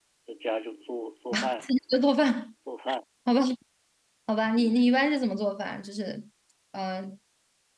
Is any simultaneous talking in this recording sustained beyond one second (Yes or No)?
No